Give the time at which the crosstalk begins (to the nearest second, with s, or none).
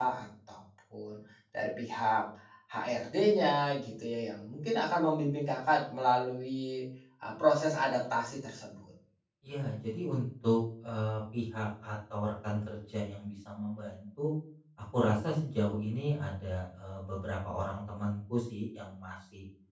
none